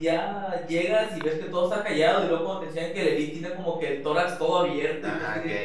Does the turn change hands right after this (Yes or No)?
Yes